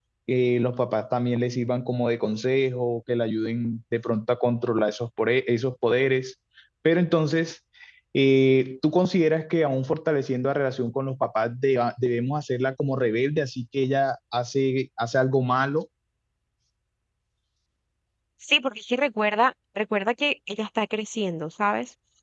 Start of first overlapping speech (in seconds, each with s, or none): none